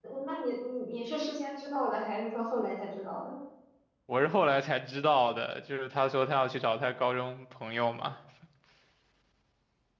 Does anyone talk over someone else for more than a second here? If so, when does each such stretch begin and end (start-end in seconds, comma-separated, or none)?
none